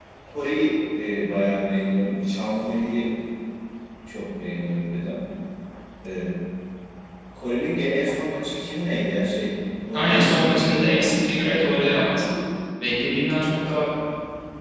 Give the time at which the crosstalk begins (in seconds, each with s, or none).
9.9 s